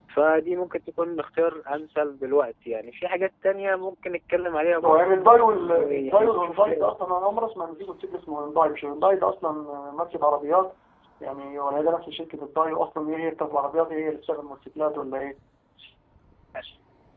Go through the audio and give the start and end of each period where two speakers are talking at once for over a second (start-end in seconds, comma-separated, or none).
4.8-6.9